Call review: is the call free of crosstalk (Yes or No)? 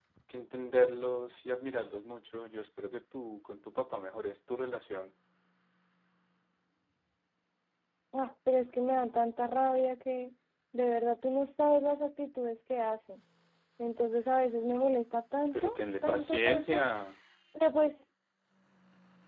No